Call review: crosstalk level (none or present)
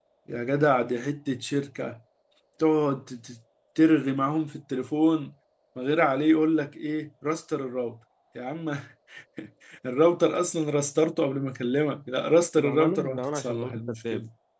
present